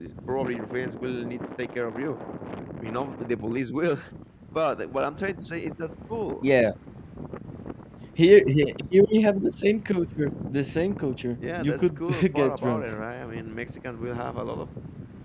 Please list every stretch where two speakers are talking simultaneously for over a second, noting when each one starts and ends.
11.6-12.8

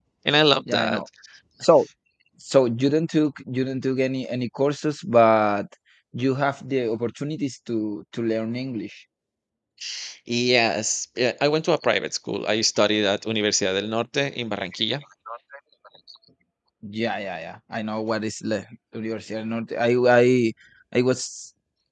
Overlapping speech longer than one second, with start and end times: none

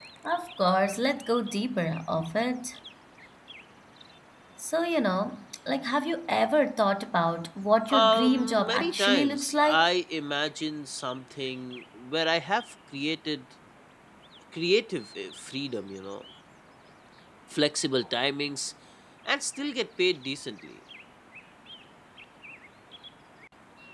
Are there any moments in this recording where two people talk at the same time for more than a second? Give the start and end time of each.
7.9-9.9

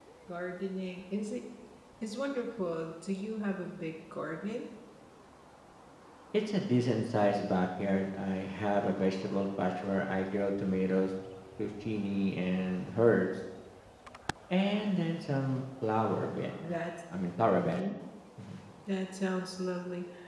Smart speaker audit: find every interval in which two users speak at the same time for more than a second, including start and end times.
none

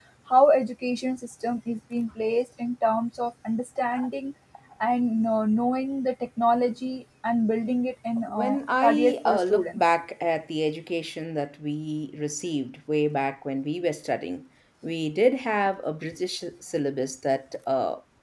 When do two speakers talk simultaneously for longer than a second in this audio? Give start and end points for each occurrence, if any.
8.3-9.8

